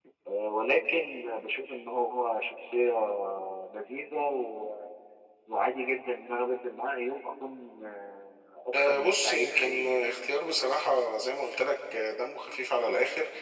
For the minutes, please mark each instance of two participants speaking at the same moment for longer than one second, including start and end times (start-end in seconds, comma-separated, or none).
8.7-10.0